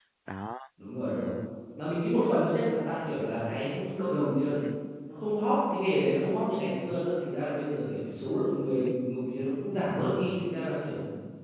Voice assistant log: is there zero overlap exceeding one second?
Yes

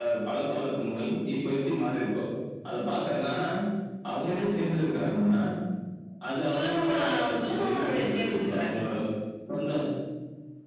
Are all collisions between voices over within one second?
No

